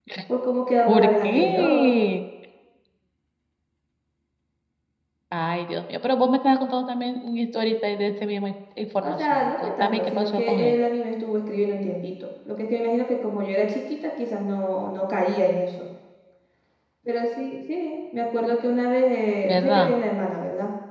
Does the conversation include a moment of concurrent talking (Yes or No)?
Yes